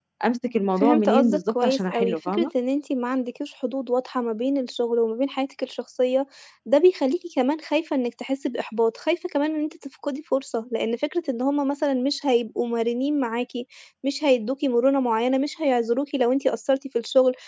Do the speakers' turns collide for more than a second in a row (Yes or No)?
Yes